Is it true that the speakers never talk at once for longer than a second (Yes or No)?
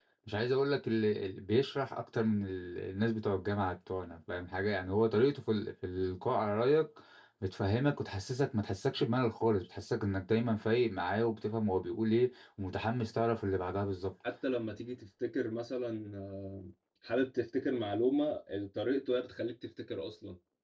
Yes